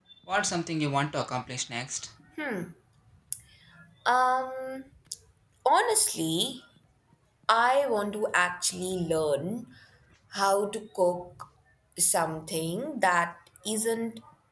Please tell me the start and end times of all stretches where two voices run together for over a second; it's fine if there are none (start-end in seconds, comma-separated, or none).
none